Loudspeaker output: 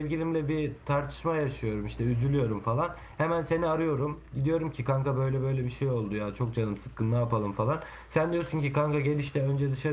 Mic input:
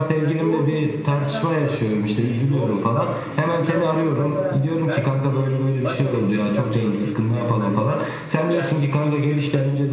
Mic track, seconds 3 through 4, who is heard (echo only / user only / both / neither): both